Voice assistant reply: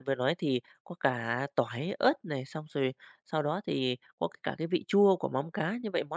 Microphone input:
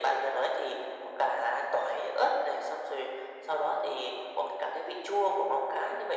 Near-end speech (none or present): none